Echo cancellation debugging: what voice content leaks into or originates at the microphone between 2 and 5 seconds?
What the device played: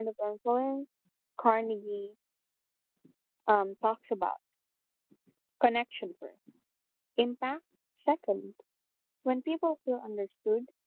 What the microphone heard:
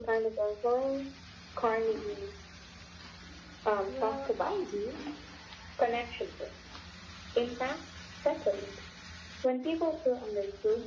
both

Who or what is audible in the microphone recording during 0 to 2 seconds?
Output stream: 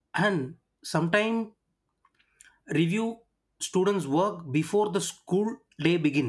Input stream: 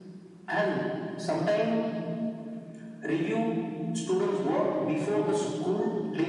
echo only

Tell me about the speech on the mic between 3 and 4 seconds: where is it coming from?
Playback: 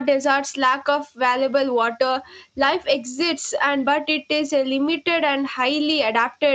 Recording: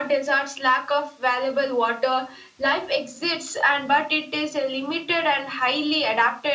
echo only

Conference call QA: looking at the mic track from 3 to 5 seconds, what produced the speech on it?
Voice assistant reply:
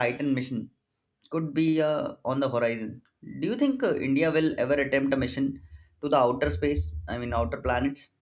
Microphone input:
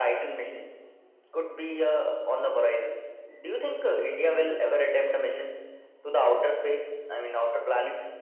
echo only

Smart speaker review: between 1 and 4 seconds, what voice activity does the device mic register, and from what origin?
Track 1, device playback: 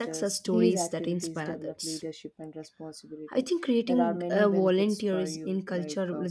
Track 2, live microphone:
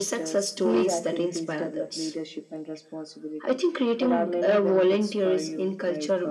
echo only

